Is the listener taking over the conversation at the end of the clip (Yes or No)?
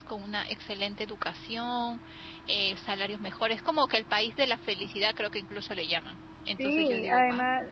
Yes